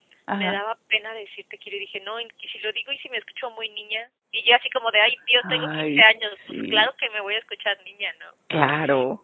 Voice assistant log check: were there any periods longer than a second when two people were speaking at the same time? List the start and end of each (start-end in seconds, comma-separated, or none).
5.5-6.9